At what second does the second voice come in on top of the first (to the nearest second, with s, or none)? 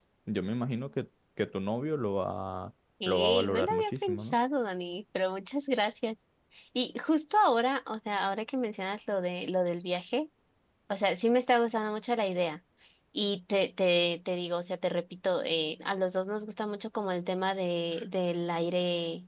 3 s